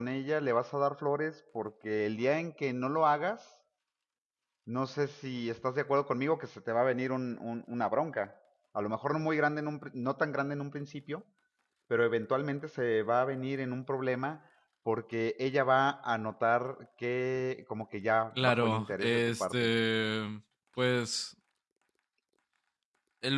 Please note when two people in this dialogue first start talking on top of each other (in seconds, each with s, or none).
18.4 s